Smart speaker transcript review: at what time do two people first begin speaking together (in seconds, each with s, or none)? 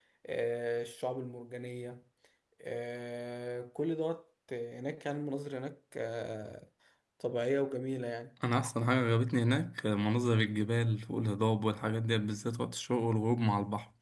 none